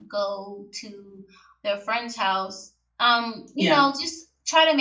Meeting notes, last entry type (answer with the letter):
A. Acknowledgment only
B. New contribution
A